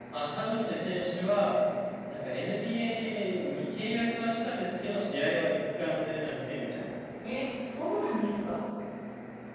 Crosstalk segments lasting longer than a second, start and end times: none

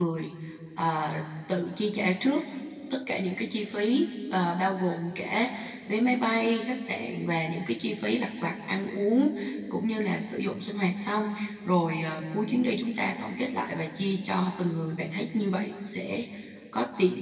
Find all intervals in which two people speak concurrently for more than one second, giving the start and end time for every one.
none

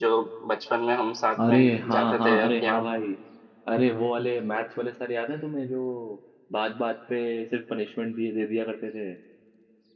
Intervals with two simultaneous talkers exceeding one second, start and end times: 1.5-2.9

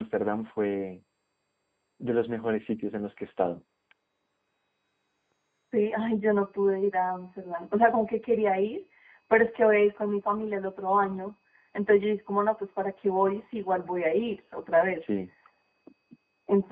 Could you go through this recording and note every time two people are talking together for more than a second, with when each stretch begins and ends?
none

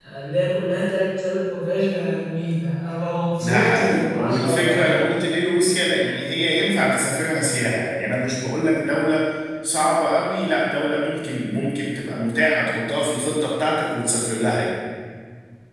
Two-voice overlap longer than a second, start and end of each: 3.4-5.0

